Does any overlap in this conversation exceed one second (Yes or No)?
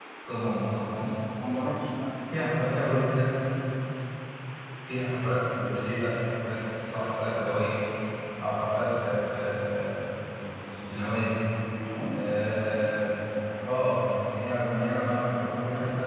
No